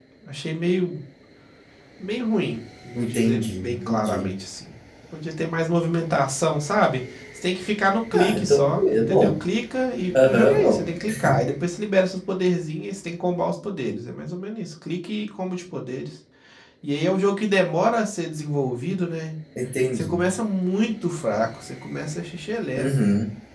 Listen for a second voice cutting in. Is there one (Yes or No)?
Yes